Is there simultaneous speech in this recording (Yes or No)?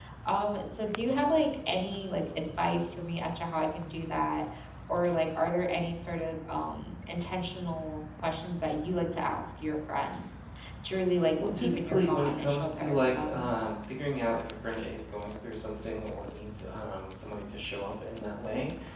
Yes